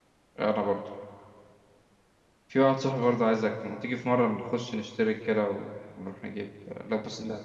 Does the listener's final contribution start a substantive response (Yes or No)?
No